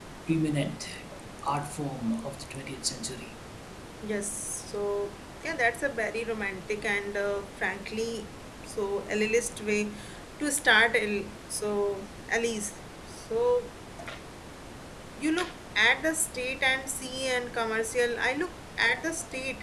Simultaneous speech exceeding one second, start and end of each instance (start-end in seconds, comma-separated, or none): none